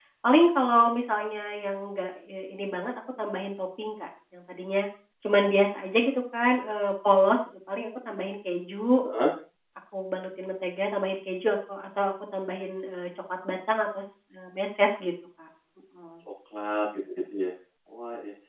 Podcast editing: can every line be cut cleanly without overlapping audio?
Yes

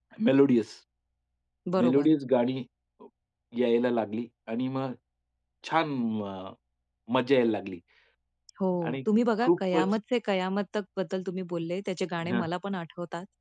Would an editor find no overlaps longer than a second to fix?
Yes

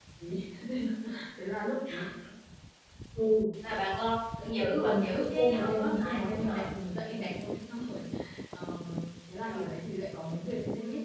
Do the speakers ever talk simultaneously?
Yes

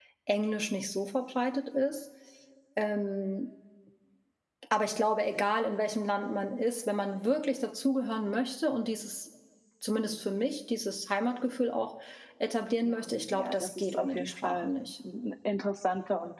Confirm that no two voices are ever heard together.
No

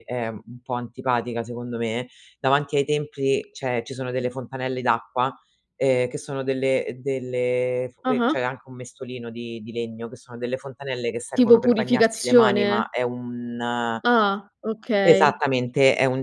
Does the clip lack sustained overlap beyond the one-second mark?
No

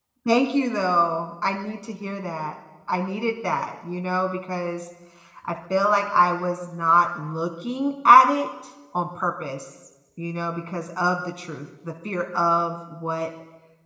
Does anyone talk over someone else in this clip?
No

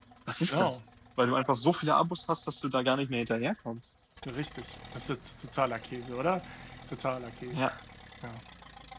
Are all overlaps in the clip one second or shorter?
Yes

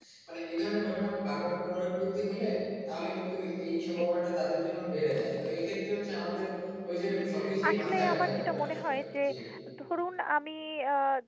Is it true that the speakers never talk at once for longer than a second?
No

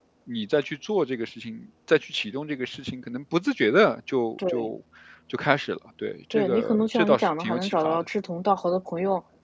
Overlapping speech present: Yes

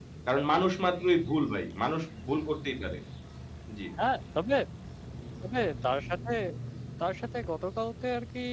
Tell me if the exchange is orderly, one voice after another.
Yes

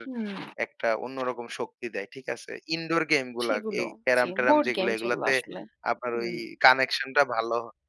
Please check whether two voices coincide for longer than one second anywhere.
Yes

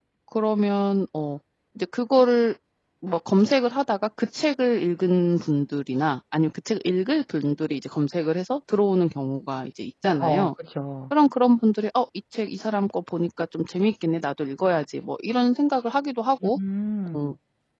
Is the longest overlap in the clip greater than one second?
No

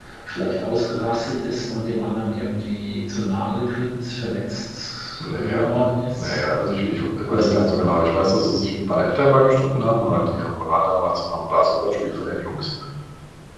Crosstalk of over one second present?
No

